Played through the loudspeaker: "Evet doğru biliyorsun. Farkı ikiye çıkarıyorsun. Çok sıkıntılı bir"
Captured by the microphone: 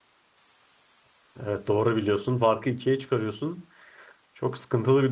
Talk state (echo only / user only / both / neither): echo only